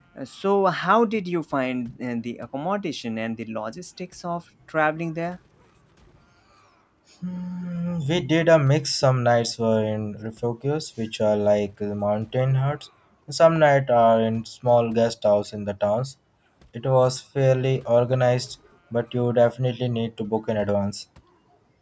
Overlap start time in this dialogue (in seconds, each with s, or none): none